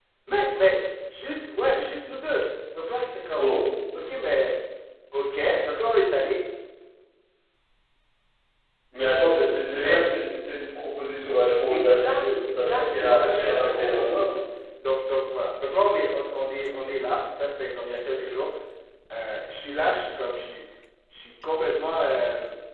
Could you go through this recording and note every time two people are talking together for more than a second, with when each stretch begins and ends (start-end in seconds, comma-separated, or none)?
11.7-14.2